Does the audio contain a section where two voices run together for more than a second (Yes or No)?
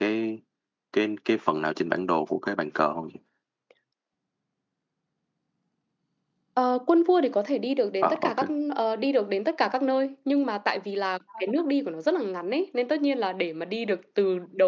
No